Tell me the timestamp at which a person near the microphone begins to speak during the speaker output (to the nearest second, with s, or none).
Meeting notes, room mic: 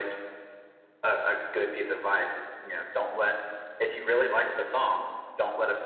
none